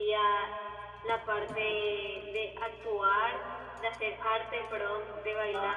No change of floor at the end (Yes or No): Yes